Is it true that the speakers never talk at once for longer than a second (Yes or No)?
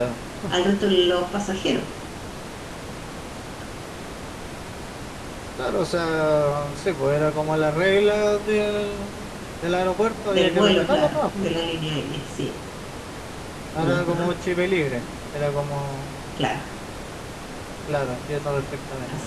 No